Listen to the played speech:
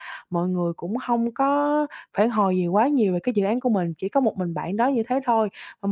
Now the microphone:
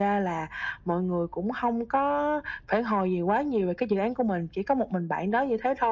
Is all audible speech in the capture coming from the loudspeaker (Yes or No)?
Yes